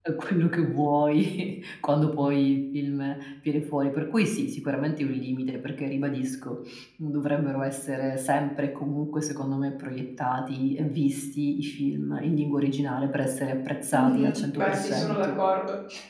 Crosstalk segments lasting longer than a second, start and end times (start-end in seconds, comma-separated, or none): 13.9-15.4